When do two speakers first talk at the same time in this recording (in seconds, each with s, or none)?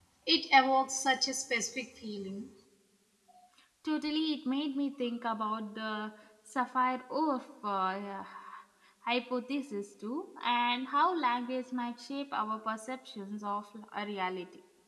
none